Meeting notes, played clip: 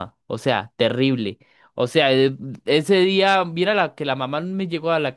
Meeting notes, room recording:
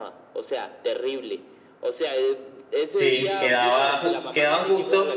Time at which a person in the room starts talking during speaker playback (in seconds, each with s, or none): 2.9 s